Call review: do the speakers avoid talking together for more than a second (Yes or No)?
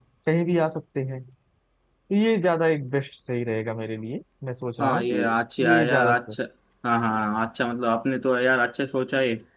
No